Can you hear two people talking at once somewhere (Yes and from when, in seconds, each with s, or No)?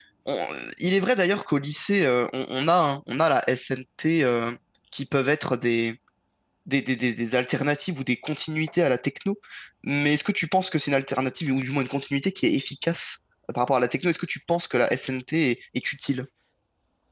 No